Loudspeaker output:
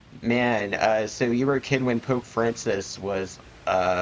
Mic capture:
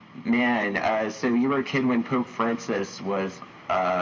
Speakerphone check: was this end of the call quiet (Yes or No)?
Yes